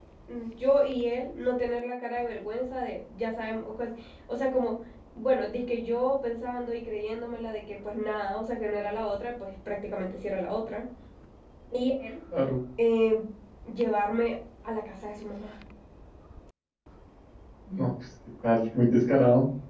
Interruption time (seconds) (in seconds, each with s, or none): none